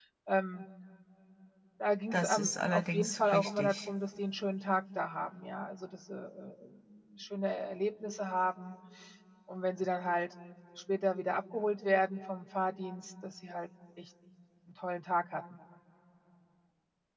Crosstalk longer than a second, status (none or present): present